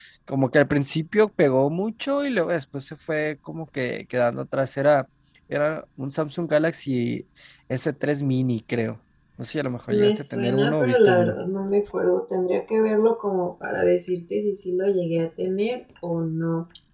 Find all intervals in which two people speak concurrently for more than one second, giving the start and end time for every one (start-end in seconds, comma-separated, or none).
9.9-11.3